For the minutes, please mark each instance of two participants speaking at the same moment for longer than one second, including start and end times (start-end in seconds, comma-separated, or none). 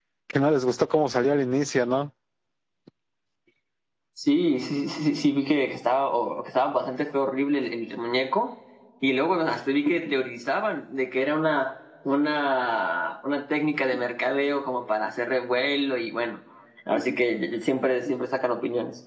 none